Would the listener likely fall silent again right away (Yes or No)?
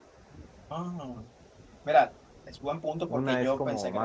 No